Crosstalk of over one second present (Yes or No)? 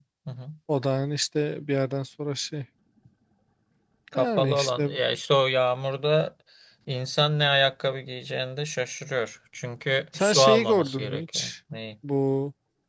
Yes